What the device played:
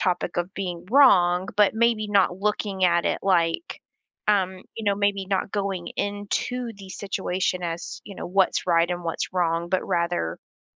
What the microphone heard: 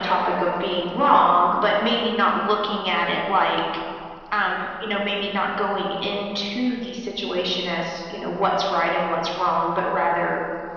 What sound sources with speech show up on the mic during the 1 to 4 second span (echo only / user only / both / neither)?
echo only